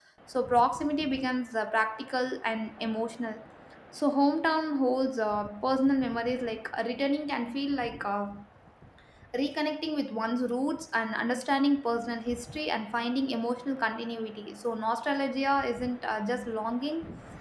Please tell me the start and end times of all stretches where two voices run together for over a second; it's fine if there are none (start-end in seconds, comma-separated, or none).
none